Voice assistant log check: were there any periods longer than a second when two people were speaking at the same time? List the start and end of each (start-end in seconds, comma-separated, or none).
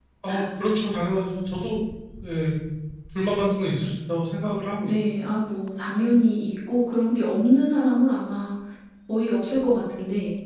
none